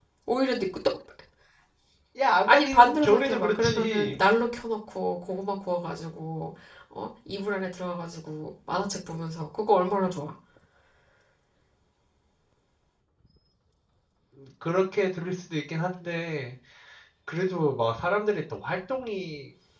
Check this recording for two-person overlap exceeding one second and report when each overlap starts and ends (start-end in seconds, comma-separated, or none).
2.4-4.2